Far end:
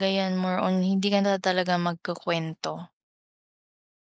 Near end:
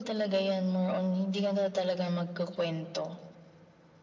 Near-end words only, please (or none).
none